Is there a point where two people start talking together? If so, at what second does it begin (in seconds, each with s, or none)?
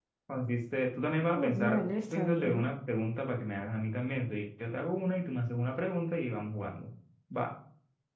1.4 s